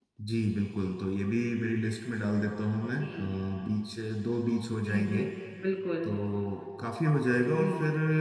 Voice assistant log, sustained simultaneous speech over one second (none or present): none